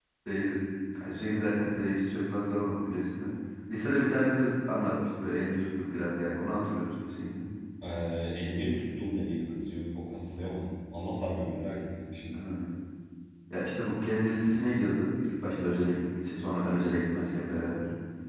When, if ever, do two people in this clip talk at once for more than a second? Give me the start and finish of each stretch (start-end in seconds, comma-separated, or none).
none